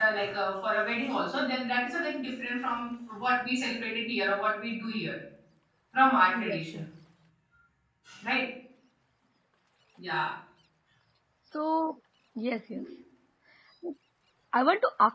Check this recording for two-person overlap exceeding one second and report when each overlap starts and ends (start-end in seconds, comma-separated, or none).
none